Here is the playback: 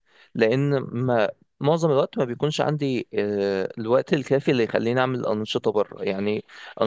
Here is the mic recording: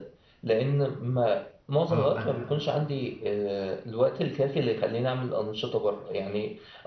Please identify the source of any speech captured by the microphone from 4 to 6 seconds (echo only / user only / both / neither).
echo only